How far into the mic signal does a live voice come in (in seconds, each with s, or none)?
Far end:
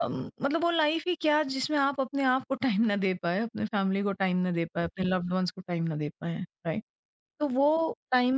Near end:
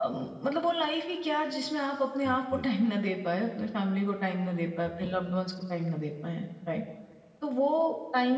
2.2 s